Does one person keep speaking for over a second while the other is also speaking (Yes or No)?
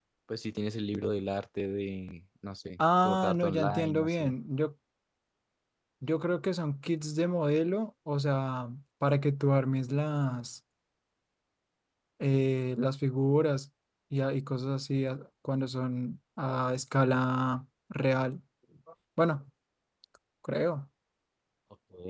Yes